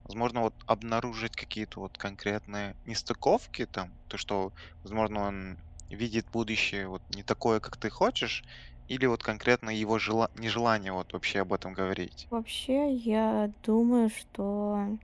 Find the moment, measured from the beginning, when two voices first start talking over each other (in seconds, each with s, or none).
none